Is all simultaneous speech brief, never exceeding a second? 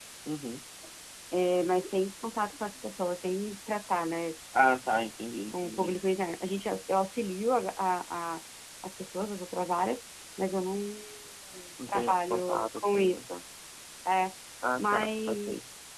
No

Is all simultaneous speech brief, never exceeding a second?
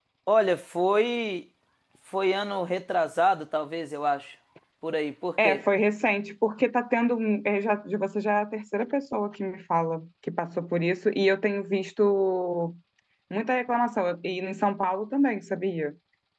Yes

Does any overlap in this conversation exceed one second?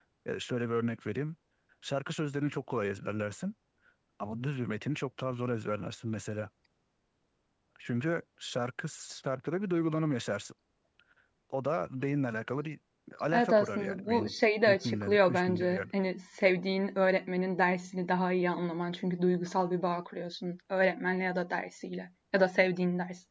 Yes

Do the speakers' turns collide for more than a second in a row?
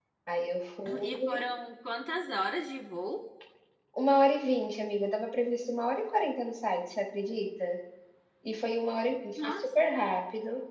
No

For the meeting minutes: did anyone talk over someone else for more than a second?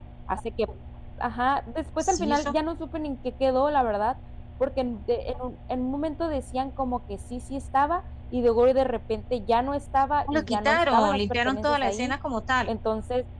Yes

